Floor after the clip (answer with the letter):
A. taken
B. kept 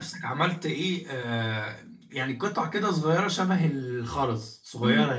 A